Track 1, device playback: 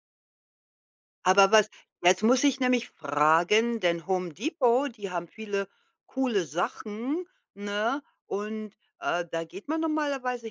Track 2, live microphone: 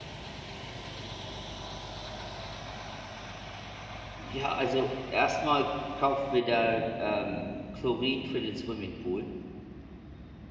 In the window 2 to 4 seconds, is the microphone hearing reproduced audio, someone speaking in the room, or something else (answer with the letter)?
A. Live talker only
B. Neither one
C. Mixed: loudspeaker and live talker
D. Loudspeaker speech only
B